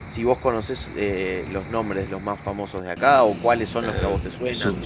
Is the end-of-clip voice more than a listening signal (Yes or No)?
Yes